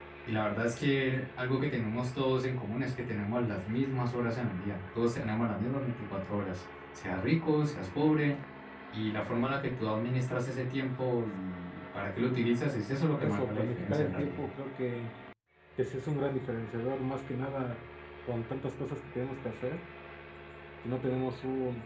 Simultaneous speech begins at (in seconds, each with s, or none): 13.2 s